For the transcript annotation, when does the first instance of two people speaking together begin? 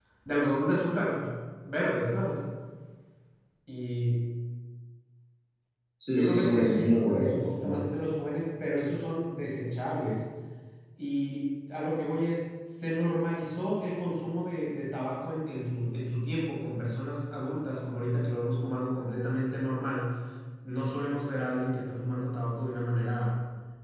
6.1 s

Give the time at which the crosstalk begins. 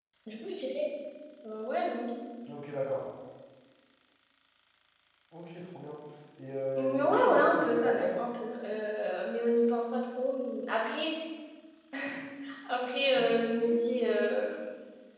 6.8 s

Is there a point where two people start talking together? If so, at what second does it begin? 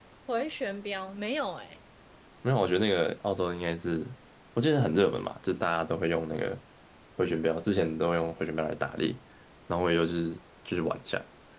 none

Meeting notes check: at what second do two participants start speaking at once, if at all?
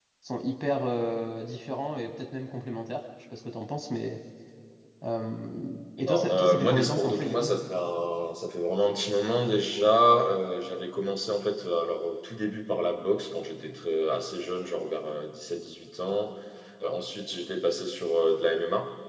6.0 s

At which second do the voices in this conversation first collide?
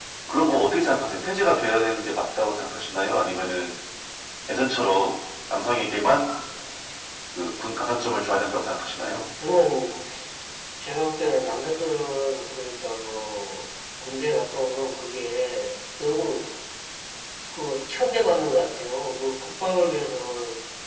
none

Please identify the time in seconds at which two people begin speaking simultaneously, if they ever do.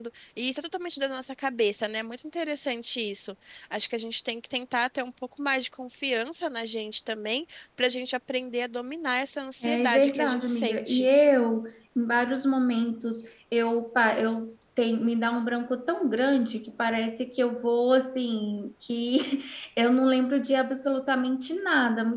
9.6 s

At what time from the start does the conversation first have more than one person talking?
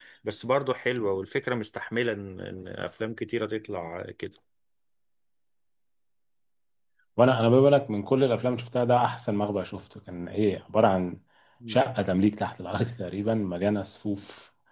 none

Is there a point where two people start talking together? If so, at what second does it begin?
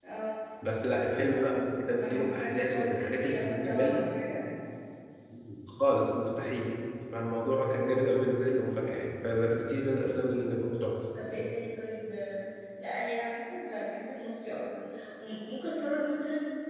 2.0 s

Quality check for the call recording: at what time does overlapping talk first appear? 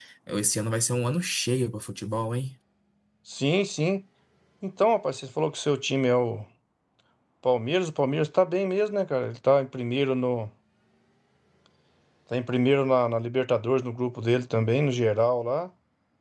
none

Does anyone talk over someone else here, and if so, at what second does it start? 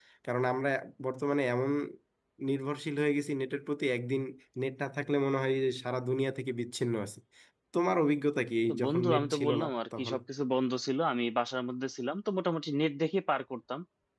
8.7 s

